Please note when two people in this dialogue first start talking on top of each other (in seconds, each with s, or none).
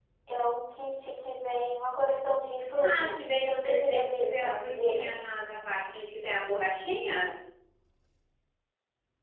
2.8 s